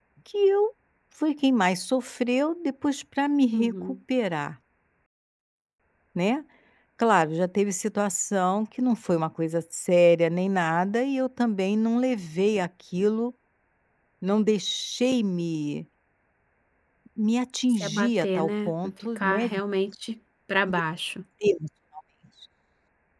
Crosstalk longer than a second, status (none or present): present